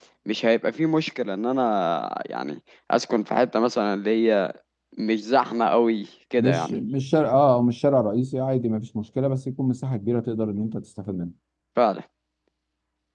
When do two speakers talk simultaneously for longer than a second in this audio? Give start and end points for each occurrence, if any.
none

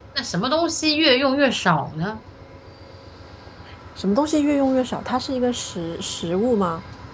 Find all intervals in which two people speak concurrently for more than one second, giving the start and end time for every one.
none

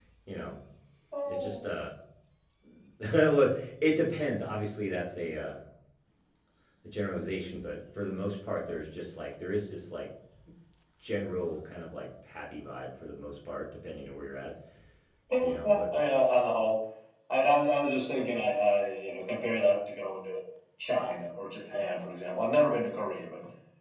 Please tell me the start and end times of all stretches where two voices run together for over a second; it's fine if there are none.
none

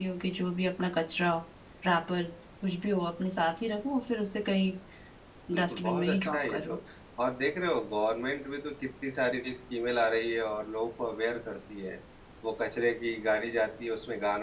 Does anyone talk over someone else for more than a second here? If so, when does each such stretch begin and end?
5.6-6.8

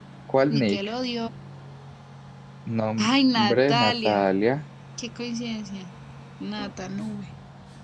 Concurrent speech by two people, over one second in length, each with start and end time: 3.0-4.3

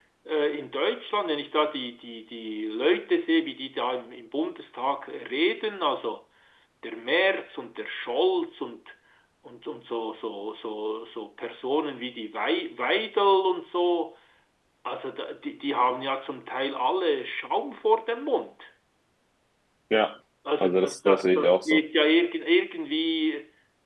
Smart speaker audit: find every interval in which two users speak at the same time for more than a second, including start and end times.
20.6-21.8

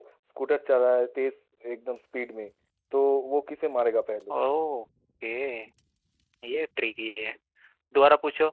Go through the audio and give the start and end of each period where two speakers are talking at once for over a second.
none

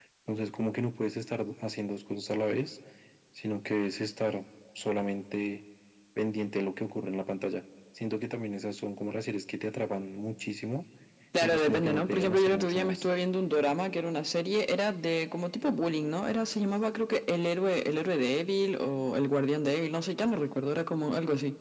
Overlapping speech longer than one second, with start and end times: 11.4-13.1

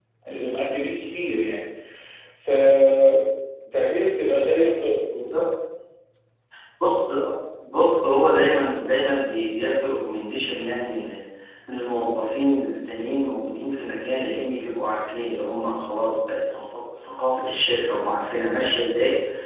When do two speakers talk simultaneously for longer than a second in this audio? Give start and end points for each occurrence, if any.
none

